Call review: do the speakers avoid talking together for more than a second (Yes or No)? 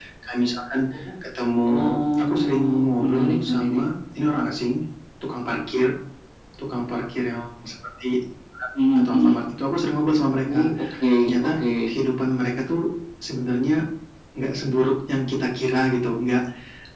No